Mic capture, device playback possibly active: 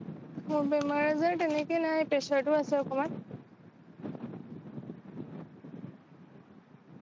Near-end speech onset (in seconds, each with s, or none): 0.5 s